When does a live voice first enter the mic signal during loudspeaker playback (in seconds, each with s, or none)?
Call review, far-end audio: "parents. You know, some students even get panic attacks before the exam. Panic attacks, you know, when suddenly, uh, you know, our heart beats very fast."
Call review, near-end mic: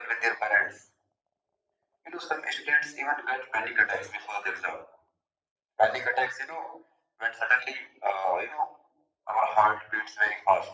none